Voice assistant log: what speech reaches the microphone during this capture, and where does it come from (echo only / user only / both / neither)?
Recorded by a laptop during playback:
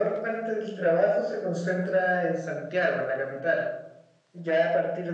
echo only